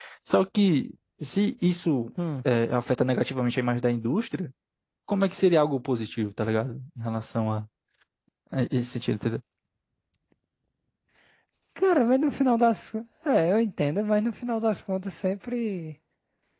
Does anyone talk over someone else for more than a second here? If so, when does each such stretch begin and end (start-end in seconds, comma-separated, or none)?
none